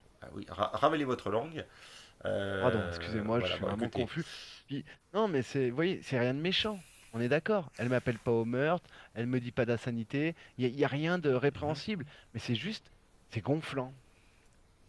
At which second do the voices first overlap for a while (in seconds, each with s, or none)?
2.6 s